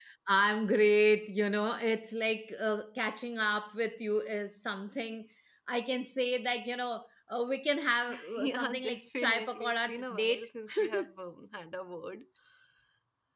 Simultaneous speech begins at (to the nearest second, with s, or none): 8 s